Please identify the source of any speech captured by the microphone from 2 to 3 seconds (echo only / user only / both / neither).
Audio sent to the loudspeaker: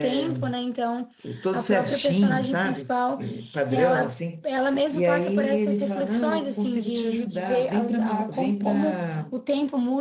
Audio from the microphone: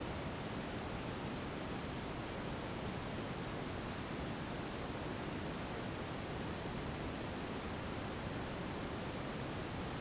neither